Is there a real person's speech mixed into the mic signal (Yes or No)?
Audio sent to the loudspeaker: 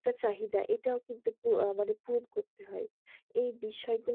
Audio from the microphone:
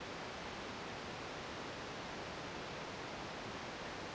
No